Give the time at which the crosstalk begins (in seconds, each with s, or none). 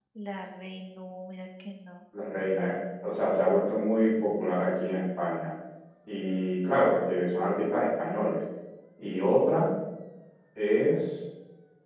none